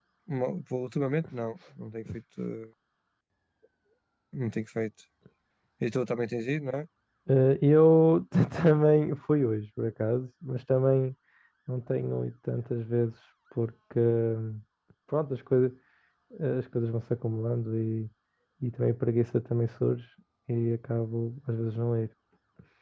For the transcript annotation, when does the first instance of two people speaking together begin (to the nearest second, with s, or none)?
none